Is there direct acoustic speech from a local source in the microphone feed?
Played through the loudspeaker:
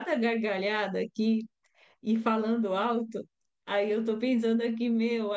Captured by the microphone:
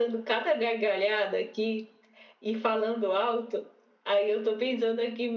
No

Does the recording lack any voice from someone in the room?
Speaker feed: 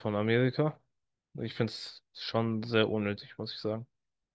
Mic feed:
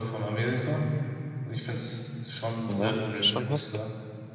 No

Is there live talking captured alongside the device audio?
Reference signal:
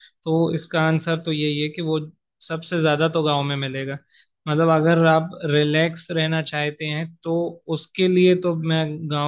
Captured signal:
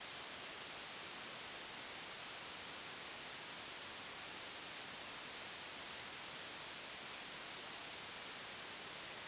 No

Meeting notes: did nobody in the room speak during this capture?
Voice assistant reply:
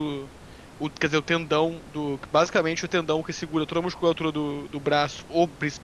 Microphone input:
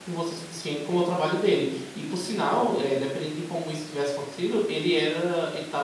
No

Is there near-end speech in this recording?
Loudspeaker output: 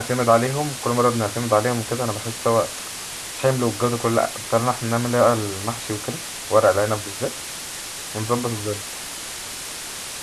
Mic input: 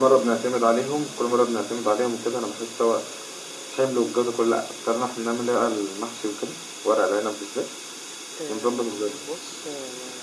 Yes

